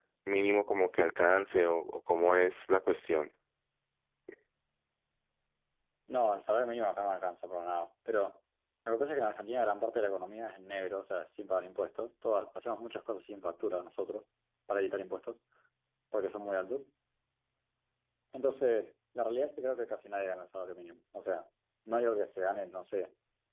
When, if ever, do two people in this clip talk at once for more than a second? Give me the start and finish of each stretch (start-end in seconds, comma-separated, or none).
none